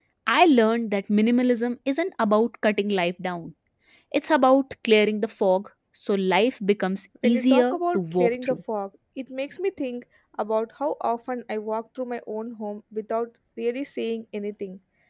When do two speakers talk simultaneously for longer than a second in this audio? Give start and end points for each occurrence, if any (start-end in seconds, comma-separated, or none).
7.2-8.6